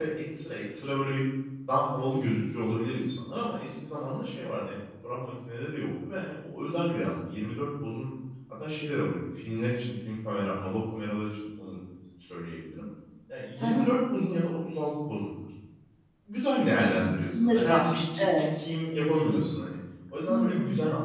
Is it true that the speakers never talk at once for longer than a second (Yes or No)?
No